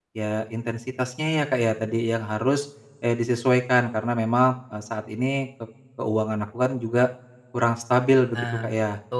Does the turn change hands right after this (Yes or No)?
Yes